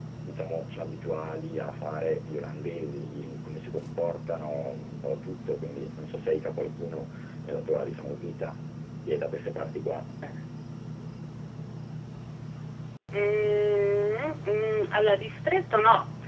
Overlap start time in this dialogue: none

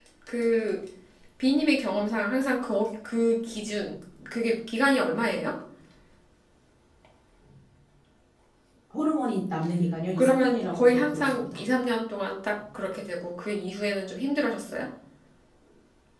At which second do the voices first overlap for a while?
10.2 s

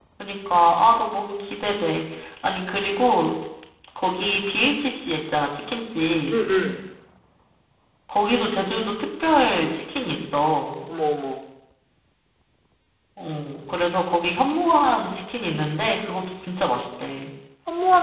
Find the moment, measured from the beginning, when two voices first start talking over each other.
none

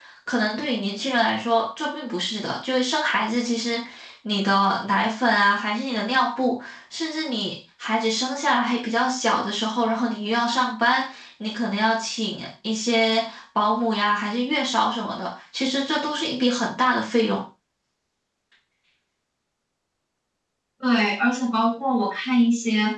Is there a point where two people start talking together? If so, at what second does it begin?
none

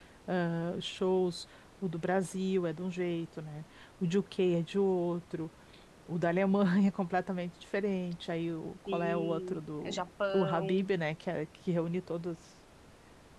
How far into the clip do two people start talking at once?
8.9 s

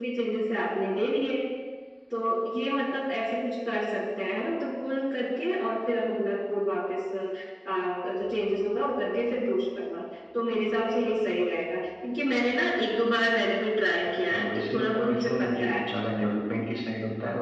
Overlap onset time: 14.1 s

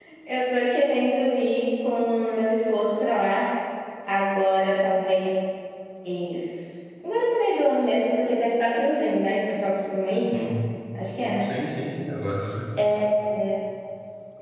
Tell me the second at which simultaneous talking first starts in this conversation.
none

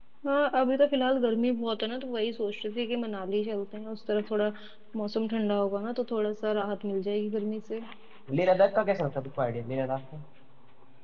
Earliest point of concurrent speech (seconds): none

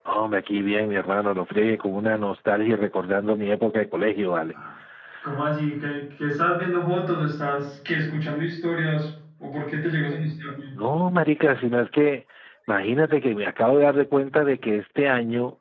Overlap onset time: none

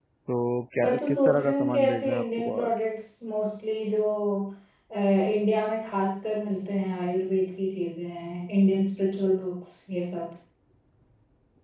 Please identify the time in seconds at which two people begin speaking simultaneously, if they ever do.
0.8 s

